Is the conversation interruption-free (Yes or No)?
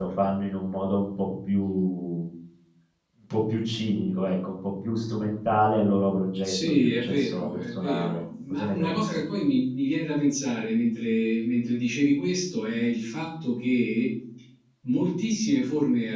No